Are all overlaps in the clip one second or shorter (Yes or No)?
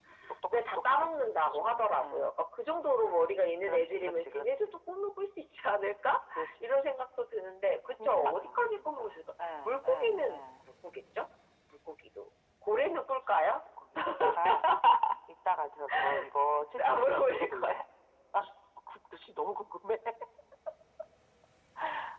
No